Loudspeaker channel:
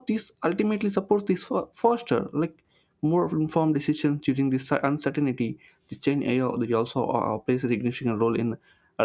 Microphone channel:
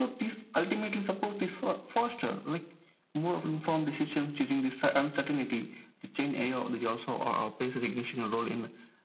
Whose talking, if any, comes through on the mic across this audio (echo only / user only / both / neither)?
echo only